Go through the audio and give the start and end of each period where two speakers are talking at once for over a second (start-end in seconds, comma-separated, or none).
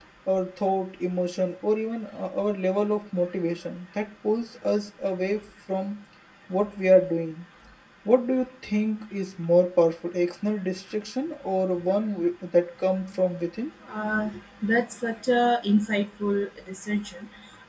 none